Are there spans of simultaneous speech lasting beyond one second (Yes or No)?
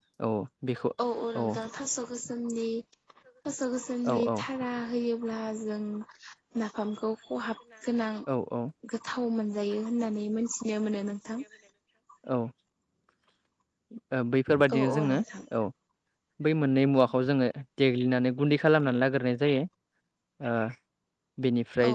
No